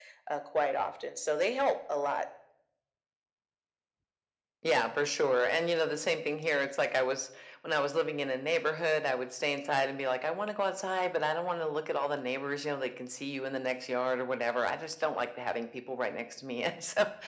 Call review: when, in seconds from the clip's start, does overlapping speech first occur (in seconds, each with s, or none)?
none